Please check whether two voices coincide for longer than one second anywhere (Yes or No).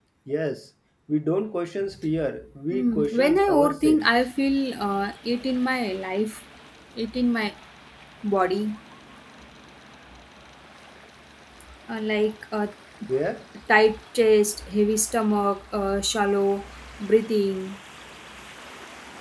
Yes